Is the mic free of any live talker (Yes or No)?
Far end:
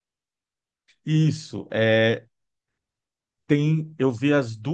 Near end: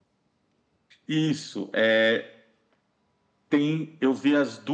Yes